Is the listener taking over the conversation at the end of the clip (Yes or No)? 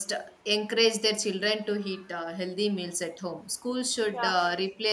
No